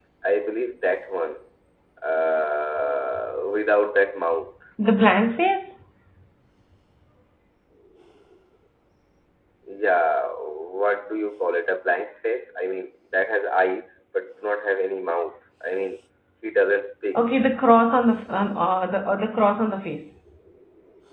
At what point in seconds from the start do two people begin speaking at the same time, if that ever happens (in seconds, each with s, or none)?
none